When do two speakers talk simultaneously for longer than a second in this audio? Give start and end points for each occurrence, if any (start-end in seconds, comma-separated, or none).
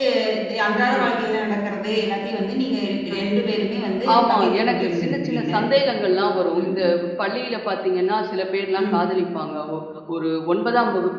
4.2-5.4